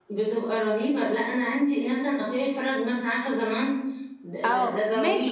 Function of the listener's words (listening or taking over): taking over